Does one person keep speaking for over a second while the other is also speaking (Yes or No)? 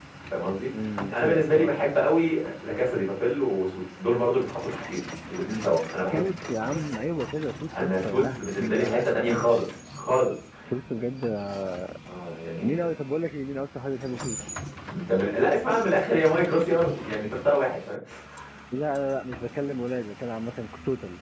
Yes